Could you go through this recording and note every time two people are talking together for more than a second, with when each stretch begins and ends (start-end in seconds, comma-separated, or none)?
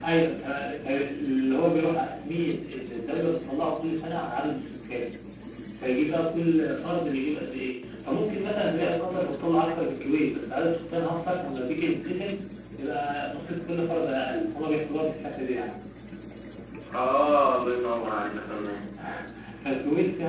none